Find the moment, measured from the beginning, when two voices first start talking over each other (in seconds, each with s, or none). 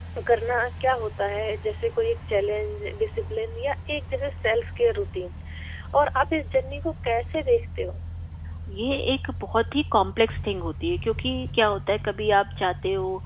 none